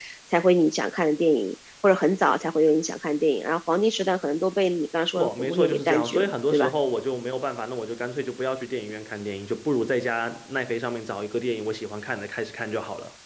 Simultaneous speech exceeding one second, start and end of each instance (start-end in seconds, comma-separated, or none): 5.1-6.7